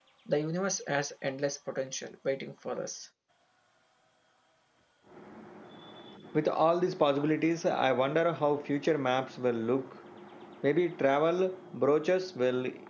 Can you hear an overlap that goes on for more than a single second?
No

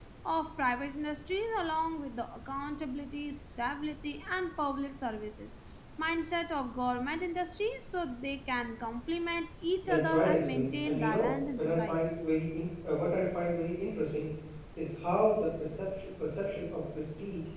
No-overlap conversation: No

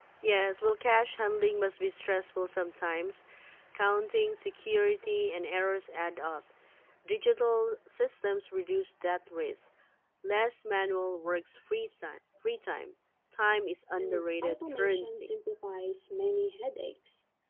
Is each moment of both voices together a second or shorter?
No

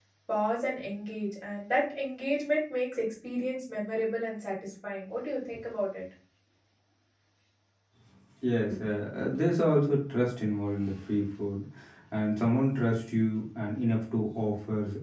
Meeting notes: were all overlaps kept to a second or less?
Yes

